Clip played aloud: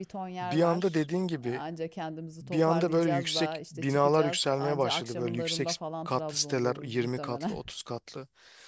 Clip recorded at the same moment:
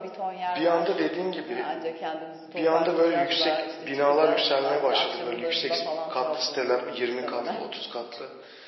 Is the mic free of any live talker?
Yes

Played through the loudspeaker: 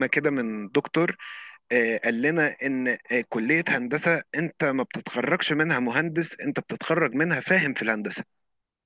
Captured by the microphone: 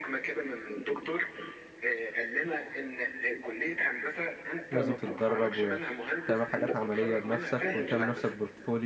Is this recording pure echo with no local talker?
No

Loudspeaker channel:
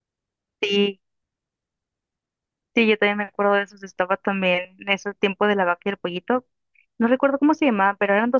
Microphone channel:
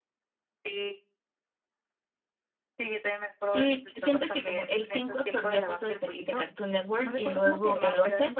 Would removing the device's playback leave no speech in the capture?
No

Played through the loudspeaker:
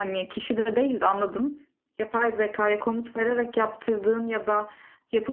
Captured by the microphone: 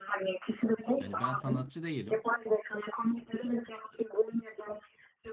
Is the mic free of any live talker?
No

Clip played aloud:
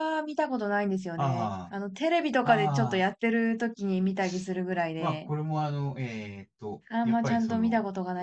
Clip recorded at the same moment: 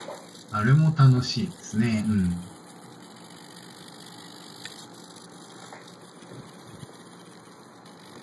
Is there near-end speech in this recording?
Yes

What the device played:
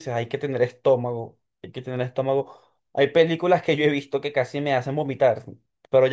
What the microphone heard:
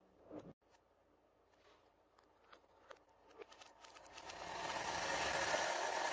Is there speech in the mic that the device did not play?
No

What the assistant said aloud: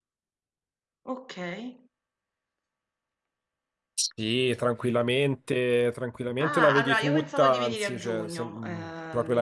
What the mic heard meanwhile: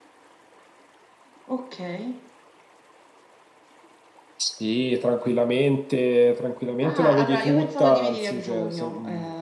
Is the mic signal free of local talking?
Yes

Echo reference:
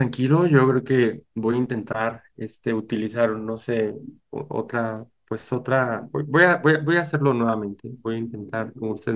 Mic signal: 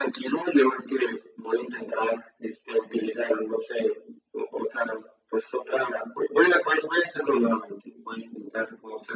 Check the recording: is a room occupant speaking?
No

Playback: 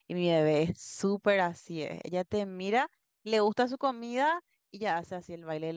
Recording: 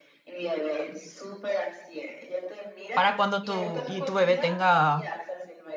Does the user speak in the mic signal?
Yes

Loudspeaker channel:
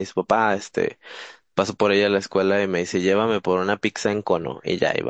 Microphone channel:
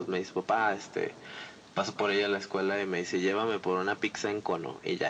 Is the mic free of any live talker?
Yes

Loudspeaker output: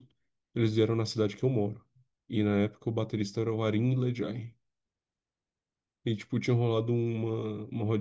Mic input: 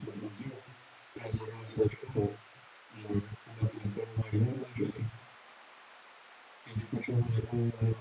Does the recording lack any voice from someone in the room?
Yes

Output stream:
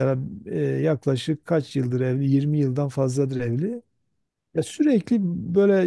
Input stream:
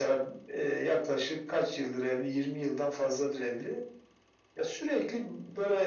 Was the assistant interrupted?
No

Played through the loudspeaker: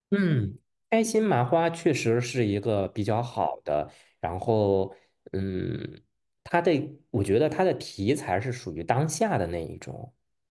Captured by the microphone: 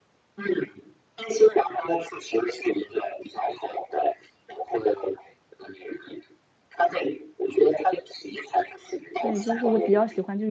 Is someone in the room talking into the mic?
Yes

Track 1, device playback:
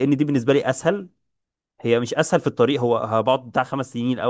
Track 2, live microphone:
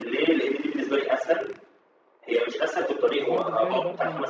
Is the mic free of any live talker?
No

